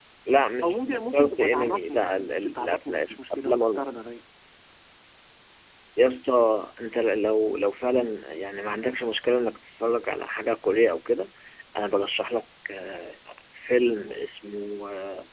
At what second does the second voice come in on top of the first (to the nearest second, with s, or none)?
1 s